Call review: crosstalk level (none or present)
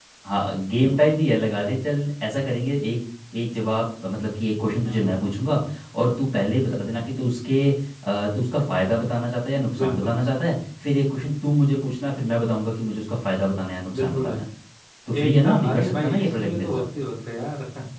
present